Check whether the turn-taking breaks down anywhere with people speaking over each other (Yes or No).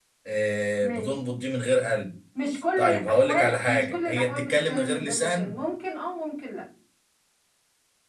Yes